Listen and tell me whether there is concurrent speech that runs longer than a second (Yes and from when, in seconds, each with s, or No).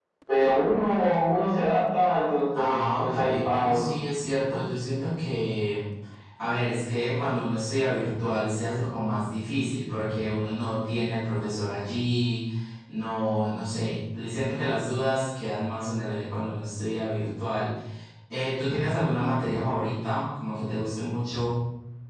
Yes, from 2.5 s